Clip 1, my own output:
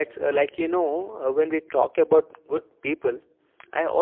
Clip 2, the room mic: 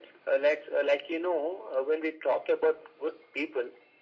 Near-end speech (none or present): none